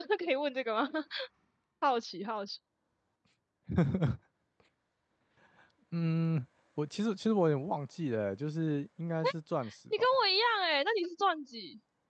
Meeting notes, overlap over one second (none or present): none